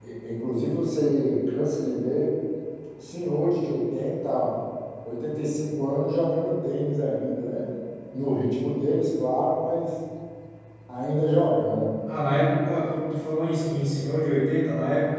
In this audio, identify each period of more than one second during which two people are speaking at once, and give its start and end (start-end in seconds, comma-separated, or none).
none